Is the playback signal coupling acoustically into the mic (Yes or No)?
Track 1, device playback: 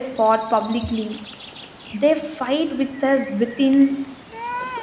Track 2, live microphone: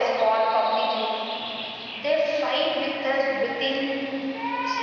Yes